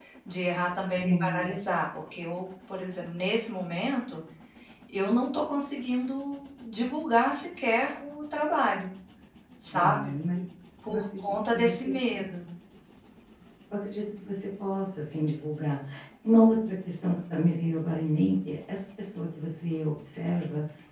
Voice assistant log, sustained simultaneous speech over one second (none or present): present